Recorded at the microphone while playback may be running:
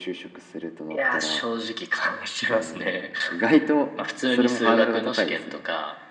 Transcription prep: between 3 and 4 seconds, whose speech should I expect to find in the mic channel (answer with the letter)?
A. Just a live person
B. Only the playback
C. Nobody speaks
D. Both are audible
B